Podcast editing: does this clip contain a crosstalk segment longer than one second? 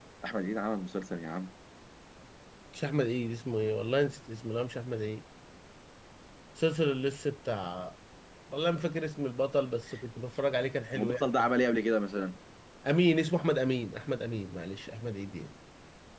No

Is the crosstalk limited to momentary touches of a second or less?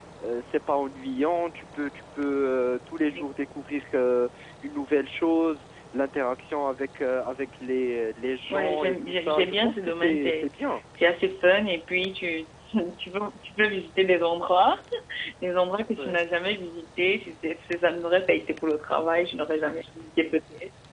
No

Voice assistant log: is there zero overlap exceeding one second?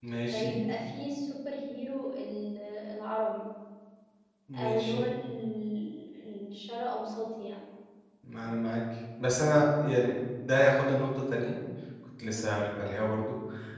Yes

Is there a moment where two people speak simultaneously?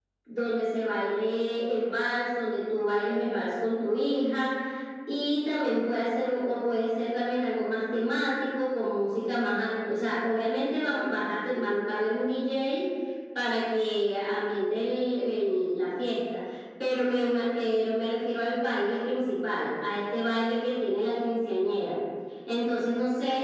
No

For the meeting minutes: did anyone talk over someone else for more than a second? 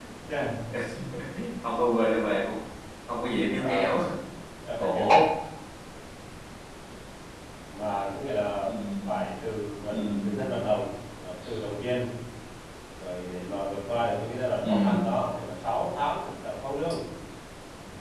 No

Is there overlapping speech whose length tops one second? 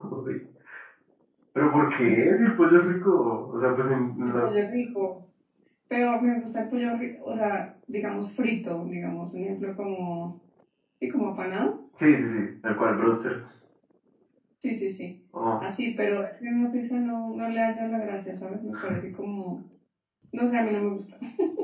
No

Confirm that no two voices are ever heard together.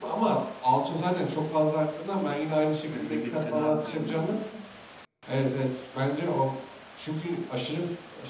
No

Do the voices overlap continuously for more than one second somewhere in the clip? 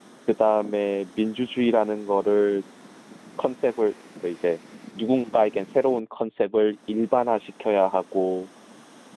No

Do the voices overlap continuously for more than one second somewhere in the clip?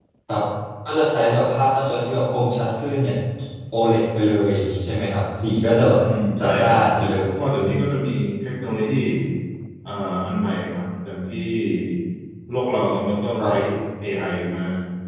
No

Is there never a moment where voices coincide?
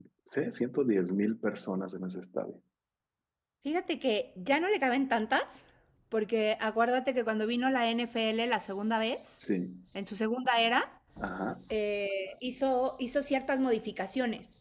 Yes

